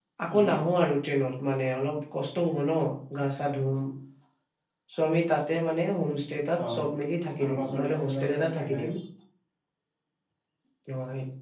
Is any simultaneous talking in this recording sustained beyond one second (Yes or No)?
Yes